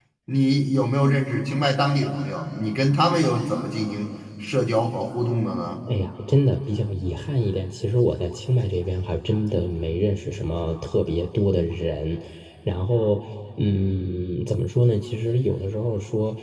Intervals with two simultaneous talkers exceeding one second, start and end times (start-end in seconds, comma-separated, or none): none